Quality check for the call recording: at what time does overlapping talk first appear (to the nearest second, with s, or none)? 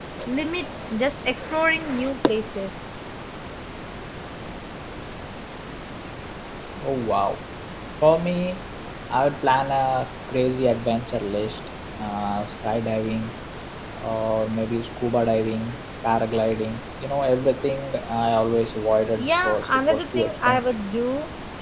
19 s